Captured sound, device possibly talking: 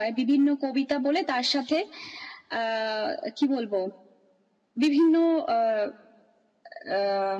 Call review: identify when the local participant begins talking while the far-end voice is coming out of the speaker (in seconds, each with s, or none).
none